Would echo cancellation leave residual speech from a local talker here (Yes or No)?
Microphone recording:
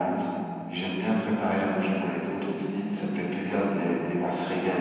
No